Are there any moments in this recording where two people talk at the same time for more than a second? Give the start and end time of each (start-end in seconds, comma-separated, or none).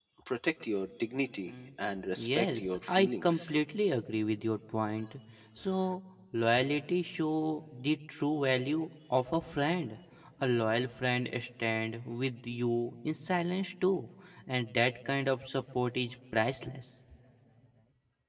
2.2-3.4